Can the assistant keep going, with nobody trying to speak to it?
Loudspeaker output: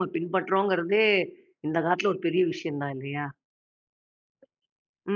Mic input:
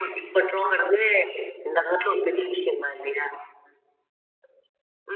Yes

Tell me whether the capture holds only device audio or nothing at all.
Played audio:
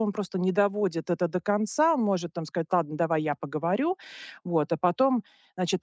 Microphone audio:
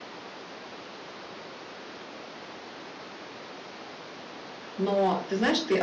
No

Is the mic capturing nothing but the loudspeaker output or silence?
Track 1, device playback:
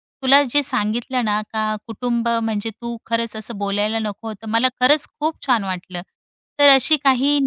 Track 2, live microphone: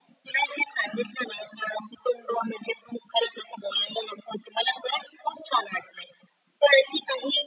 Yes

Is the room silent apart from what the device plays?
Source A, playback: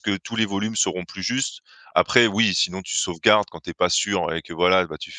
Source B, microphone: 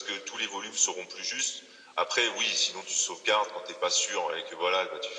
Yes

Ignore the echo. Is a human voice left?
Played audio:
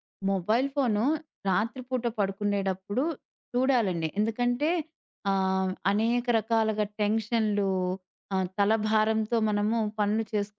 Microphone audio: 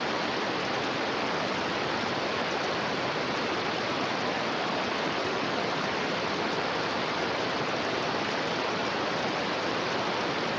No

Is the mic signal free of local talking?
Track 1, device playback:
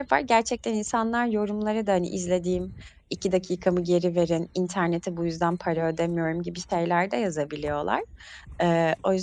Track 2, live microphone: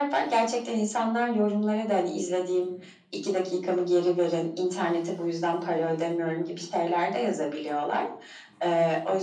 Yes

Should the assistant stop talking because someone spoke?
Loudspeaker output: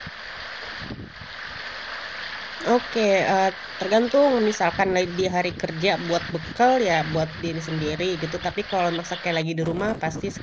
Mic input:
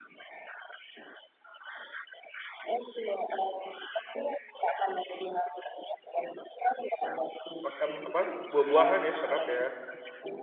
Yes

